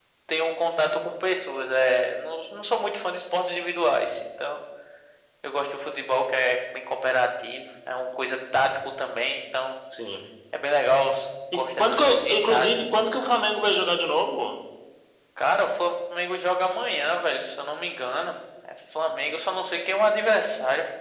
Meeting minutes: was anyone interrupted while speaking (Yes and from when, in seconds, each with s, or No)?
Yes, from 11.5 s